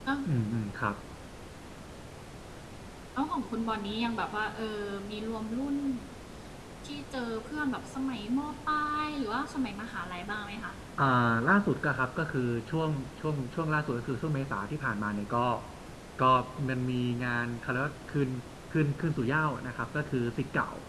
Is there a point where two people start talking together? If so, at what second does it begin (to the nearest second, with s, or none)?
none